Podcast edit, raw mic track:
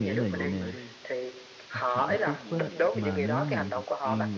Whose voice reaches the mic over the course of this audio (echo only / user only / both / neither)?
both